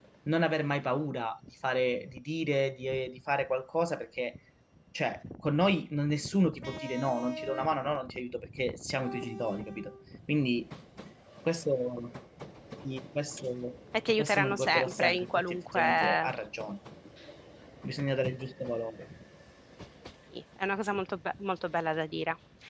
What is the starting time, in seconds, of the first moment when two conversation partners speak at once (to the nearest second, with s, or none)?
14 s